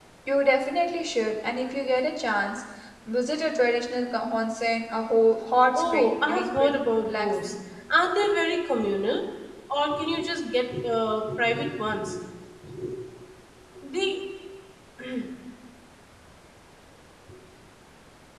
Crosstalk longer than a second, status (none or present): present